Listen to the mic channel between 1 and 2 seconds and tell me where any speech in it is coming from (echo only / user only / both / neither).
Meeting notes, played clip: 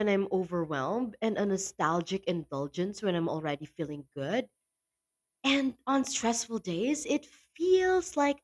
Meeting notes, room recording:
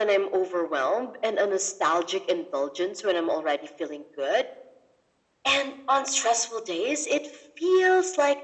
echo only